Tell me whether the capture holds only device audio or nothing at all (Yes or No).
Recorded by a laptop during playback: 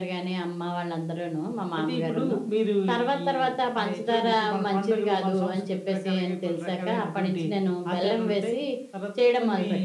Yes